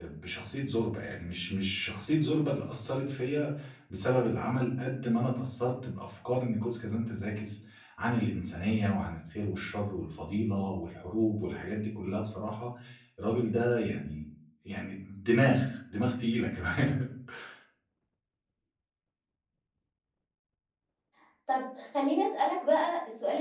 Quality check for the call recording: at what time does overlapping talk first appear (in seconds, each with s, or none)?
none